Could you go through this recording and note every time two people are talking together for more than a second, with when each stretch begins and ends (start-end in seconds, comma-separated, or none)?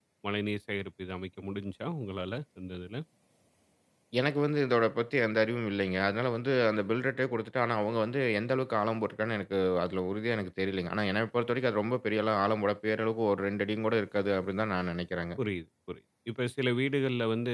none